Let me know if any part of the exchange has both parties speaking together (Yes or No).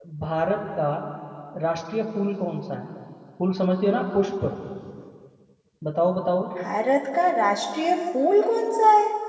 No